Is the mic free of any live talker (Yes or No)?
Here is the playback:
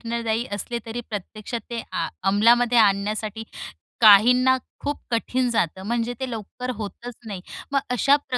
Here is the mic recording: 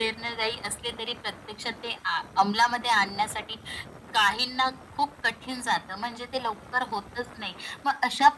Yes